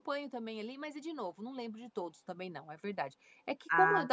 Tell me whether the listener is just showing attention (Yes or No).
Yes